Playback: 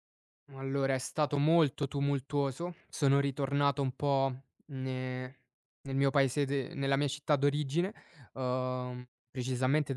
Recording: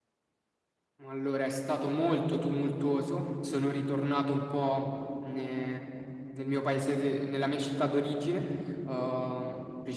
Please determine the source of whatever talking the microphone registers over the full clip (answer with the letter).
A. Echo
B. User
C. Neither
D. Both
A